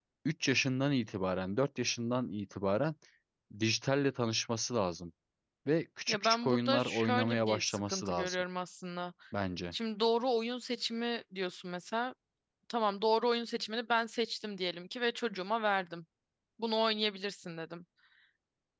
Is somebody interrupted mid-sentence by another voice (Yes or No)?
Yes